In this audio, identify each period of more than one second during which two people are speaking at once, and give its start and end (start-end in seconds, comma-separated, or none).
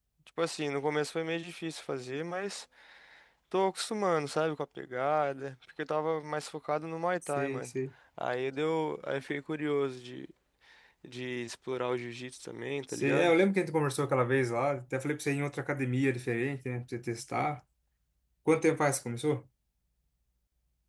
none